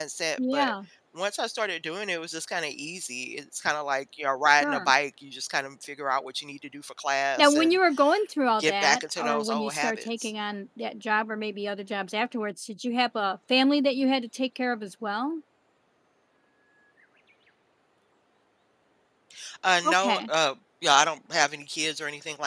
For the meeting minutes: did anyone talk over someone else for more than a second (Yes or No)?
Yes